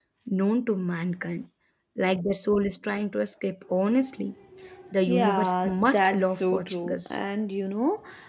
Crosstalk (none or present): present